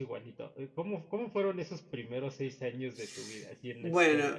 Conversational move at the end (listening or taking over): taking over